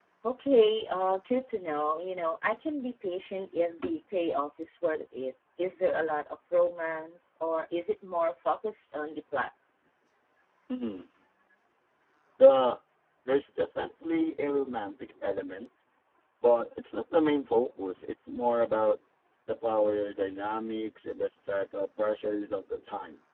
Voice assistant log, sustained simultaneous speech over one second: none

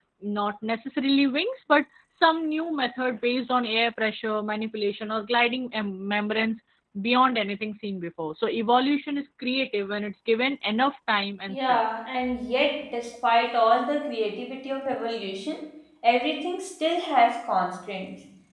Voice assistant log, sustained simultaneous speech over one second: none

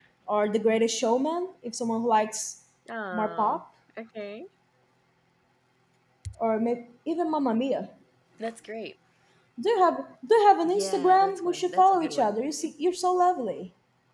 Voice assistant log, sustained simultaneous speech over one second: present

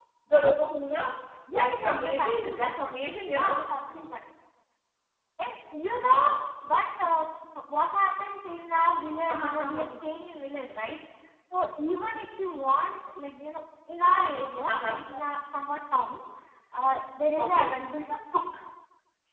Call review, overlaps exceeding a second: present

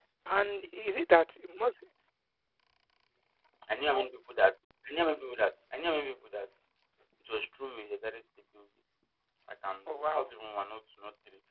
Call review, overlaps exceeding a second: none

